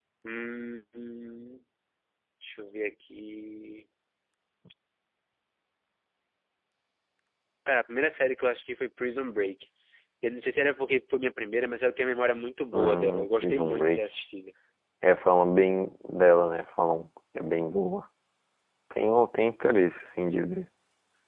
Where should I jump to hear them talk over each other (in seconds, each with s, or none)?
12.7 s